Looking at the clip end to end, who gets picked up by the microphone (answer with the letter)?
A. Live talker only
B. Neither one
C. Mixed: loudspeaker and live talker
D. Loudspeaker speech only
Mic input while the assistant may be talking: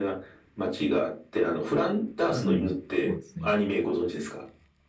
C